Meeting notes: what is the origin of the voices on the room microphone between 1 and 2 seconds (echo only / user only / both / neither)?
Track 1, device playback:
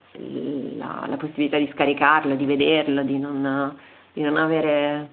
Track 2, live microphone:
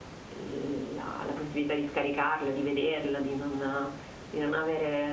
echo only